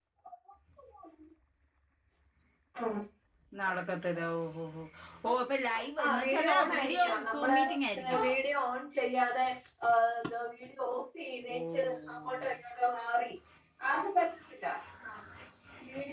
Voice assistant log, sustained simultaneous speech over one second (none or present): present